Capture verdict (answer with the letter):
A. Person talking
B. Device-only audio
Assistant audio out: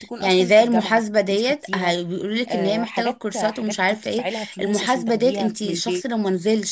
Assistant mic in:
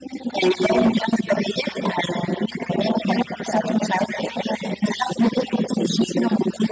B